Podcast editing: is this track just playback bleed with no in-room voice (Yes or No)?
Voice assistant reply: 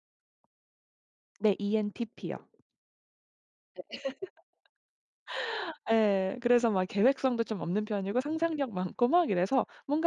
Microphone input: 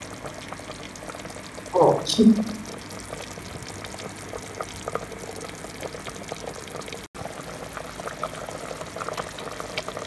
No